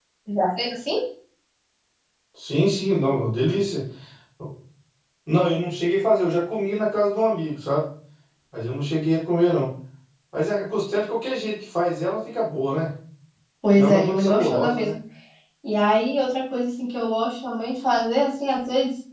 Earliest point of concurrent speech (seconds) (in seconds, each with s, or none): 13.7 s